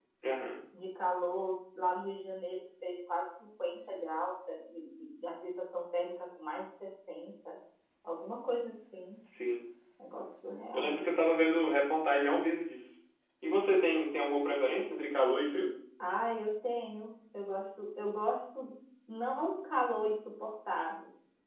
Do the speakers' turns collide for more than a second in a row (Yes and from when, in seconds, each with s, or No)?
No